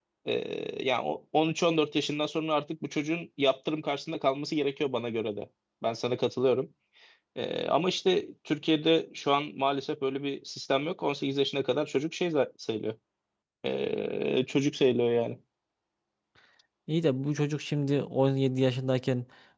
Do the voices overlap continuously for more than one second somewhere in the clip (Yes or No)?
No